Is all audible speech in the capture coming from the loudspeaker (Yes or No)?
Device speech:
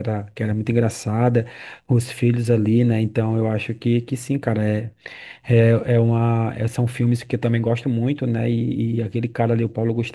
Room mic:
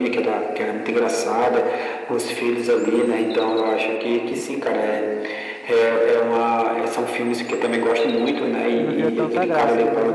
No